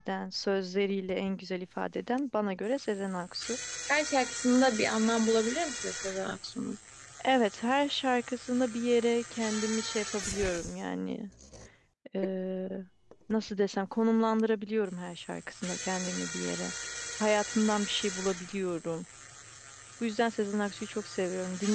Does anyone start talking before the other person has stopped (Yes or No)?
No